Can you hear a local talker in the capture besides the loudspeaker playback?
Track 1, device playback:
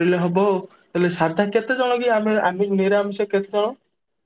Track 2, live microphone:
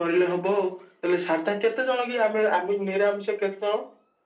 No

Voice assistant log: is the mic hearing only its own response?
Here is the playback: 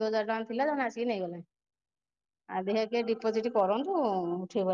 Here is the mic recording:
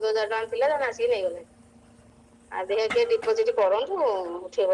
Yes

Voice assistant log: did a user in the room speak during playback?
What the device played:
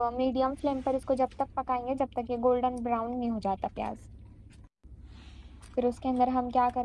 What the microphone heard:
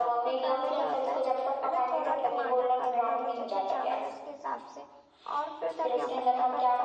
Yes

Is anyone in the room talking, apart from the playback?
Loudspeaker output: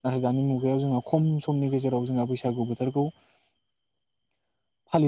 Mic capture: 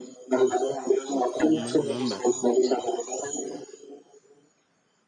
Yes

